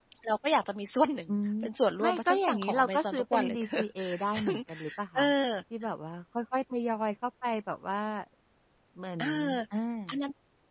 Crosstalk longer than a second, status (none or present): present